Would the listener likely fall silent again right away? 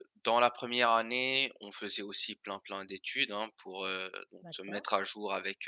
Yes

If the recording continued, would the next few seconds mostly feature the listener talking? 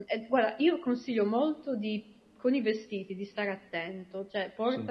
No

